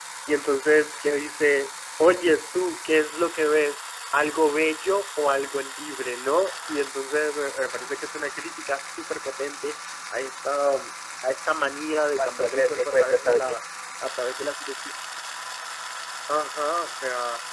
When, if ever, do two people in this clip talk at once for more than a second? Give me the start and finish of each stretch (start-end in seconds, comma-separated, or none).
12.2-13.6